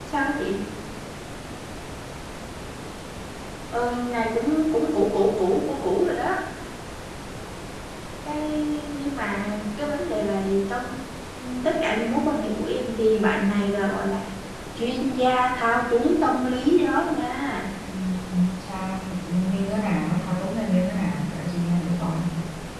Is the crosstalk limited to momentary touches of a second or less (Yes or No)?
Yes